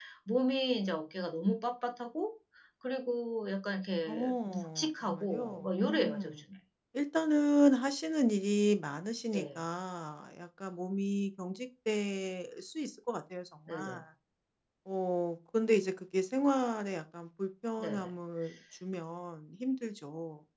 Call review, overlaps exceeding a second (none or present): present